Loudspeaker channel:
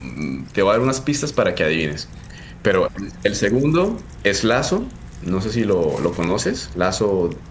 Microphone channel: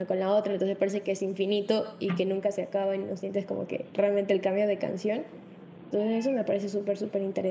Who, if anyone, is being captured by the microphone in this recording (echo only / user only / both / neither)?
user only